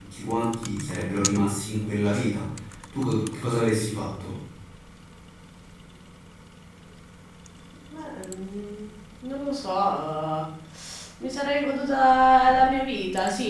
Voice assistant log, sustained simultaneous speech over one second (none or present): none